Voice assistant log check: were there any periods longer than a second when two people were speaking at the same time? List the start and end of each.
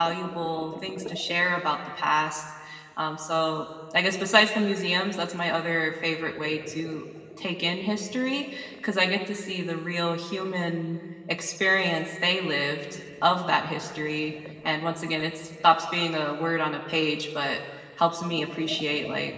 none

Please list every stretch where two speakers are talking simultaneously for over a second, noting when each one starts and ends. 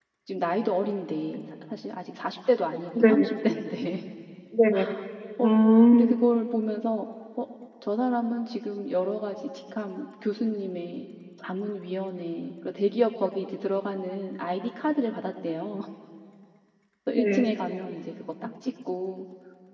none

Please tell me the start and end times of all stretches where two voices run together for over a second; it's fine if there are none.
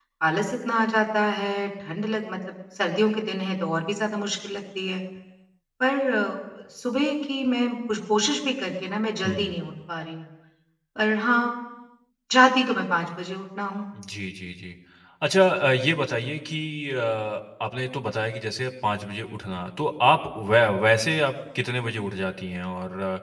none

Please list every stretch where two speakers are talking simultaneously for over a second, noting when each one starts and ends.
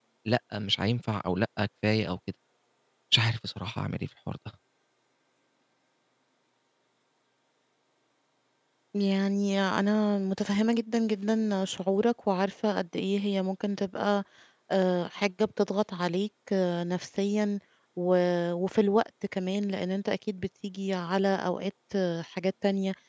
none

